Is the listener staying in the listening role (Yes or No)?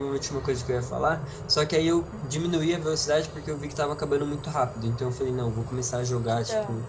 Yes